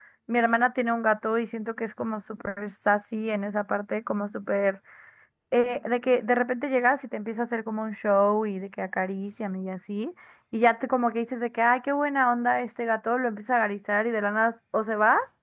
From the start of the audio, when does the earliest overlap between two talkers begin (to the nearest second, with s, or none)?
none